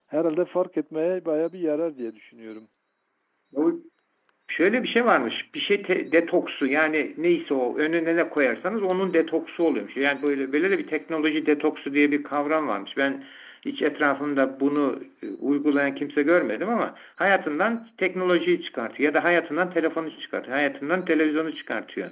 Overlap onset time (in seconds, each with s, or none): none